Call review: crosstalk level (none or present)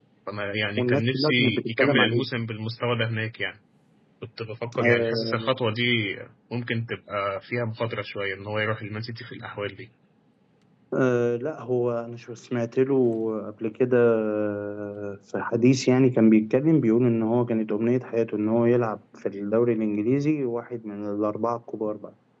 present